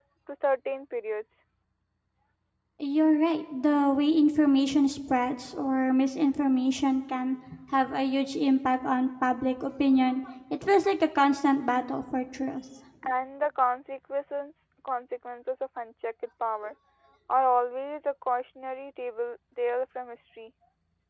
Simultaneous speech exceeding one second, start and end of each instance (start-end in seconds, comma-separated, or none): none